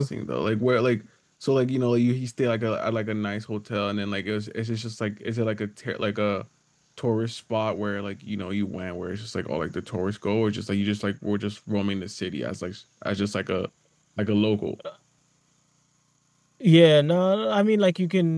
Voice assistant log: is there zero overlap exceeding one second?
Yes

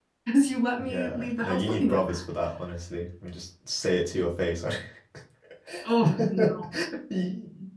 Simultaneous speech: Yes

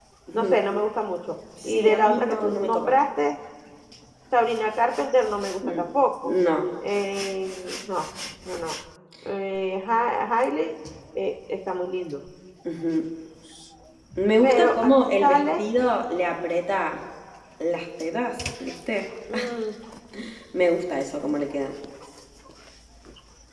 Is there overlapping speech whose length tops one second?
Yes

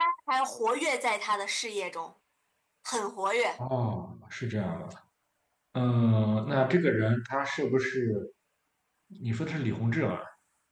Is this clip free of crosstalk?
Yes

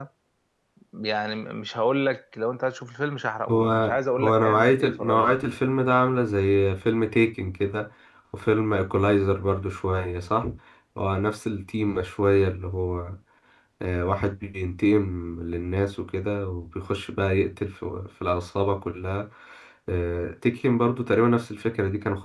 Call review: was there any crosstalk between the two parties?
Yes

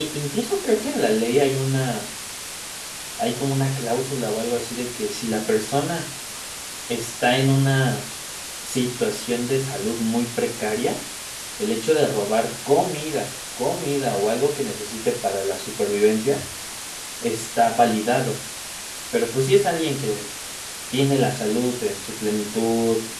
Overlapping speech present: No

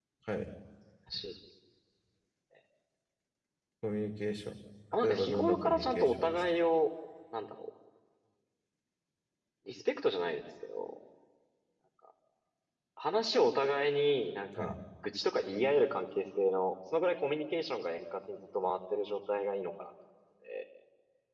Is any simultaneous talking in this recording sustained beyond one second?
Yes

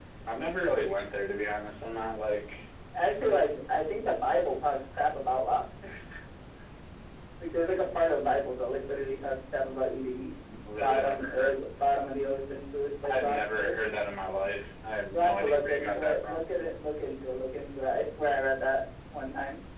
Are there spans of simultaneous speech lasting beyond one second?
Yes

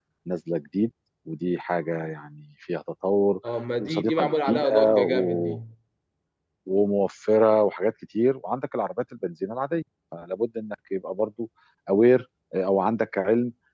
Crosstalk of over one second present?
Yes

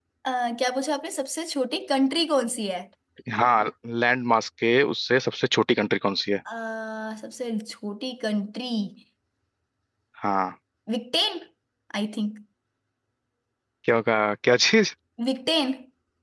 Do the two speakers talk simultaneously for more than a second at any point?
No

